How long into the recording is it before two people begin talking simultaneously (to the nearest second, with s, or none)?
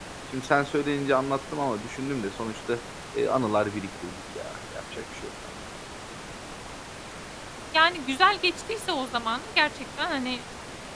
none